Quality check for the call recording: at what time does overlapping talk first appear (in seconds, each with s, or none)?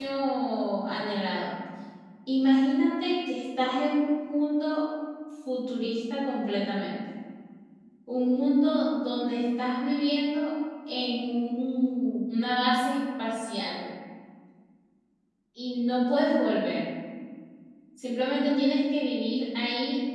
none